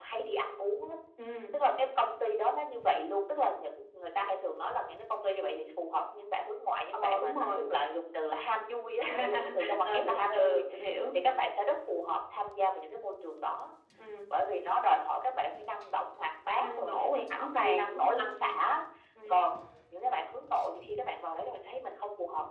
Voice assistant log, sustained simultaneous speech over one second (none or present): present